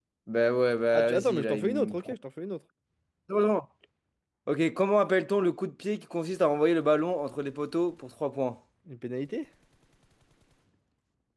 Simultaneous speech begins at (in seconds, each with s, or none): 0.9 s